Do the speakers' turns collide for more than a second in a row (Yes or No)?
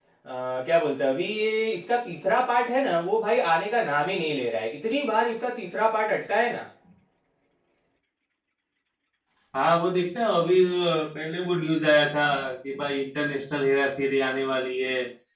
No